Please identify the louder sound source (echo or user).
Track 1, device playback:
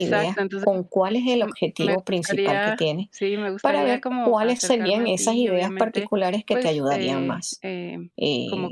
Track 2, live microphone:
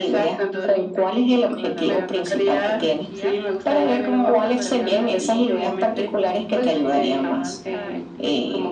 echo